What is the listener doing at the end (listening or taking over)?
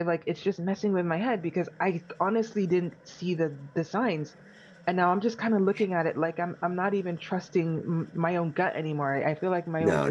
taking over